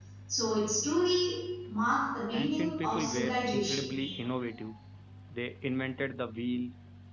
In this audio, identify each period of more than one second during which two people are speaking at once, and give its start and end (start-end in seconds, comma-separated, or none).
2.3-4.0